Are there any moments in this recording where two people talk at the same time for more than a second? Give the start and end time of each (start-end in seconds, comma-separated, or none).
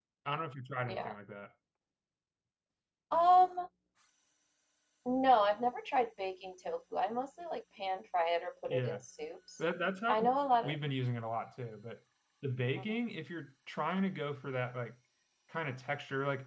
none